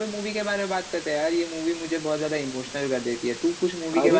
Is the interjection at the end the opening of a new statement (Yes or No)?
Yes